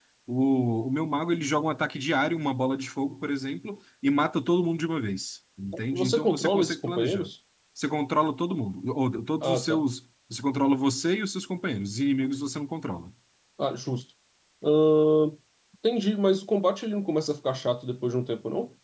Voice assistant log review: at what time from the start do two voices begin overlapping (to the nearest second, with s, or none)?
6 s